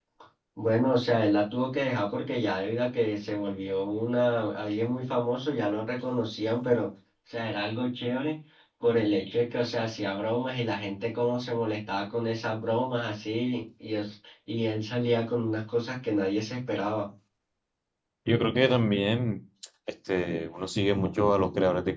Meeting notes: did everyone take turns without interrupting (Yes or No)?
Yes